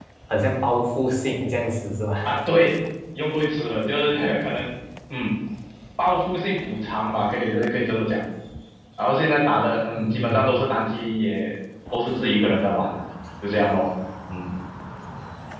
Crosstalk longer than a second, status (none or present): none